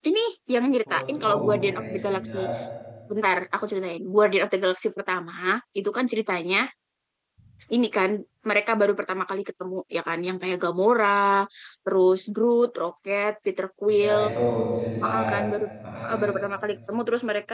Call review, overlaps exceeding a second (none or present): present